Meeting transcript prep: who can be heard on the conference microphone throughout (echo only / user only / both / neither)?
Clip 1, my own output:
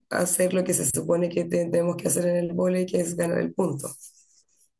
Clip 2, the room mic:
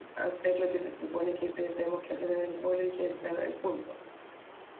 echo only